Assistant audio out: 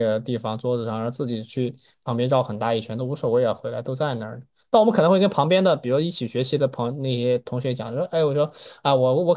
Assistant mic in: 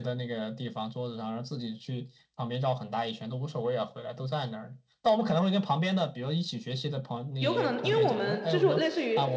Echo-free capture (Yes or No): No